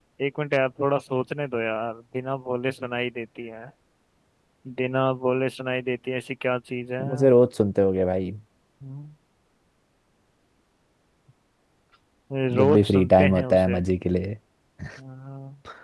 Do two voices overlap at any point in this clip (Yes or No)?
Yes